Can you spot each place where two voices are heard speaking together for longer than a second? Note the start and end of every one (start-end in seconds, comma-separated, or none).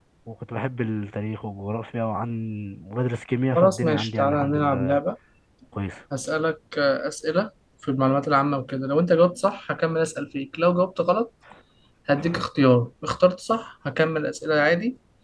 3.5-5.0